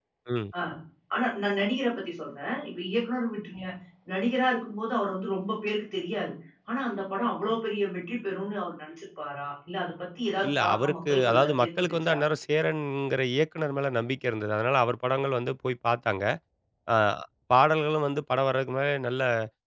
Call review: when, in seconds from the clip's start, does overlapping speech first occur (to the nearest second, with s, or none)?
10 s